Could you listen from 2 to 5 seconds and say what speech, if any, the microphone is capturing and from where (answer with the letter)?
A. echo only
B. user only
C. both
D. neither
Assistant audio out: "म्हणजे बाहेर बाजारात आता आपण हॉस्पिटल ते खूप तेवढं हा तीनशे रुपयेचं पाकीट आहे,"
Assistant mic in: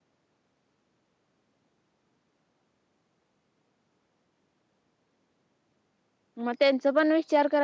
D